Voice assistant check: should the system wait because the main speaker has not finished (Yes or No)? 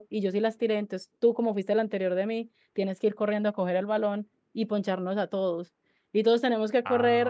Yes